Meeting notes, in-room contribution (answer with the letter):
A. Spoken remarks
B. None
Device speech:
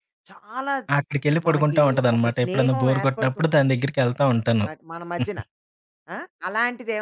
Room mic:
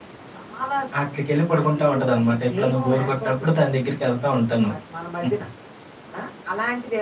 B